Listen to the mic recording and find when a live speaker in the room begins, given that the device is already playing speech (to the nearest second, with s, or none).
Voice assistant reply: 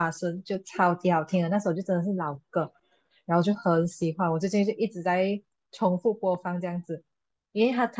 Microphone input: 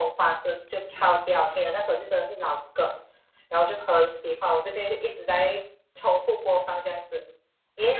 none